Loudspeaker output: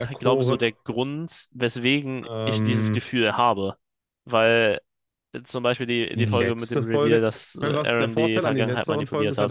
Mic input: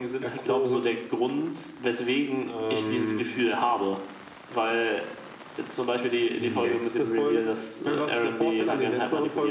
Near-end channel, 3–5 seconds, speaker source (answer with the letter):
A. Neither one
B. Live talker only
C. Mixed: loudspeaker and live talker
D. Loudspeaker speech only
D